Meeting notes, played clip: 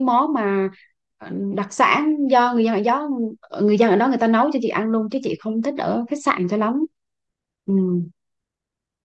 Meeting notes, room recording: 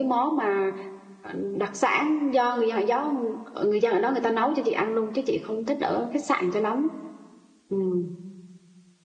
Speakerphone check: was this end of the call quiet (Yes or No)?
Yes